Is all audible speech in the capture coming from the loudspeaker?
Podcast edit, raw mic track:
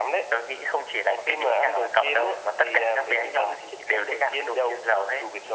Yes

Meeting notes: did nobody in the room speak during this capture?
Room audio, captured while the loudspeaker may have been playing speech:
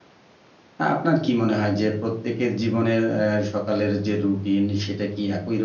No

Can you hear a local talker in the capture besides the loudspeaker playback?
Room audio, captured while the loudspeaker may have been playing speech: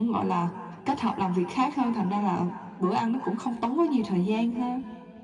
No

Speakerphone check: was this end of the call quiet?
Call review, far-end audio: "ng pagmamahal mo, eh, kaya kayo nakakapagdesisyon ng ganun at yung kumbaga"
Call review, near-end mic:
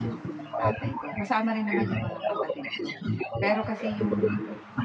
No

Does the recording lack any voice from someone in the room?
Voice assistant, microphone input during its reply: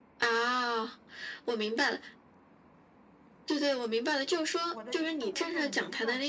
No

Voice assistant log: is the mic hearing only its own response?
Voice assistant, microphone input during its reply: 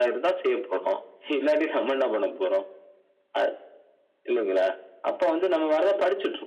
Yes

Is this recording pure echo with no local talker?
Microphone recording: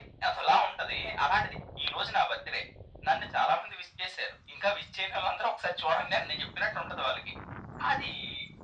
Yes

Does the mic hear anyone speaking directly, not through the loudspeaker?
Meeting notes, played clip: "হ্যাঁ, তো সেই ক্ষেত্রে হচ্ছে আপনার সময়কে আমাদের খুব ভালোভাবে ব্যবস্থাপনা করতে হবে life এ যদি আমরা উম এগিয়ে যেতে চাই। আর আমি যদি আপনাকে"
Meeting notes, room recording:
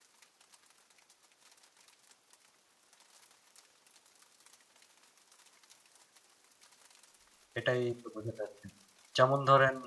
Yes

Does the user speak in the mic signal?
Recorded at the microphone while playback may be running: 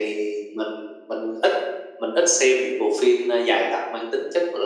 No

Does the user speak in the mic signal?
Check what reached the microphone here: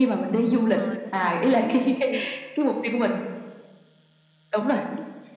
Yes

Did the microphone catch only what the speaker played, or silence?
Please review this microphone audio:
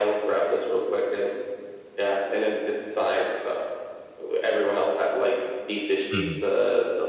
No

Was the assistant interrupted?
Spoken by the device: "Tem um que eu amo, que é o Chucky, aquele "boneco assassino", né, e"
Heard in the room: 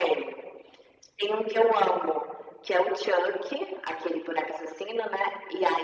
No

